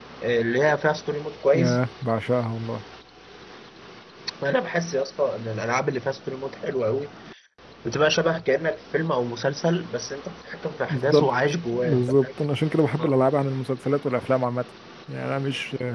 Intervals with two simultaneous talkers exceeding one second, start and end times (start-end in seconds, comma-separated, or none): 10.9-12.3